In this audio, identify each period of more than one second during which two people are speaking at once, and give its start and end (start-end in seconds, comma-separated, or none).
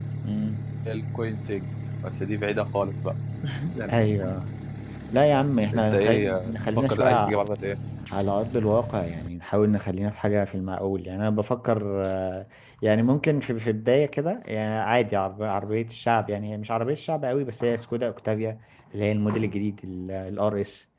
5.7-7.3